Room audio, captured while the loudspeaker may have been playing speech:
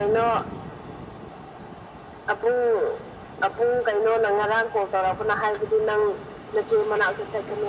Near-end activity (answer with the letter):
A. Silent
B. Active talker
A